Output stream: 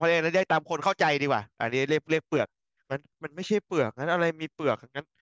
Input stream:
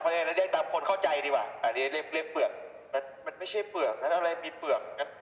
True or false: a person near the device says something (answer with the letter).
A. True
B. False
B